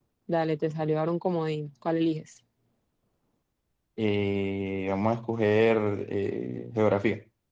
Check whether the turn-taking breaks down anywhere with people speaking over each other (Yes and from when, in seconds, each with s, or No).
No